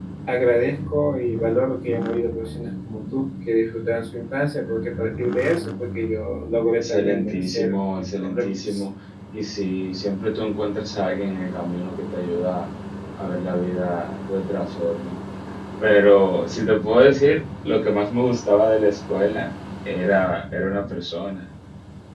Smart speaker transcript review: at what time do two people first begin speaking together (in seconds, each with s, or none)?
6.8 s